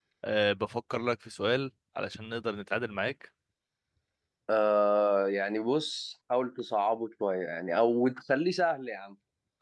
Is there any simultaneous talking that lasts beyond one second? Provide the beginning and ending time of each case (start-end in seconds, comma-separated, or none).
none